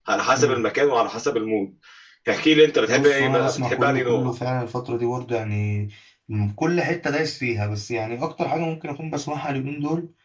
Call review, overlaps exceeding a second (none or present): present